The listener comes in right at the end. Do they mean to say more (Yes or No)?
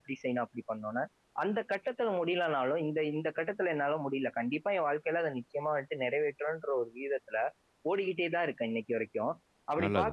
No